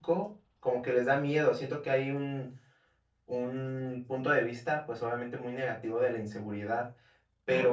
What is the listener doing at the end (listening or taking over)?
listening